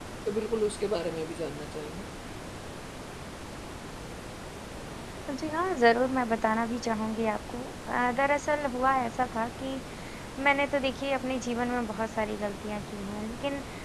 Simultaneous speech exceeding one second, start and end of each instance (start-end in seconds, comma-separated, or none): none